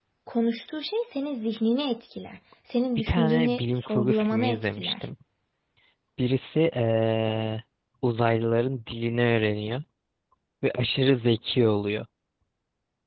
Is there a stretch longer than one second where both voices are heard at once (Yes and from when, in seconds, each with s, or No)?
Yes, from 3.0 s